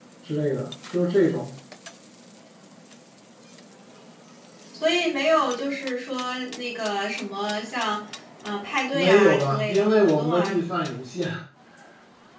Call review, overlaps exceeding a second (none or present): present